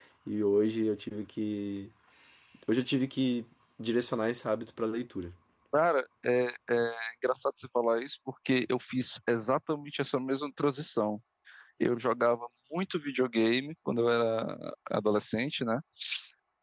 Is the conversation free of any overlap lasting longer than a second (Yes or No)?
Yes